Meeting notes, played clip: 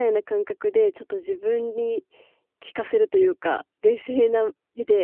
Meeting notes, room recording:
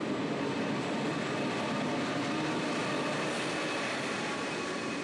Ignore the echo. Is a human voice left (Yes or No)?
No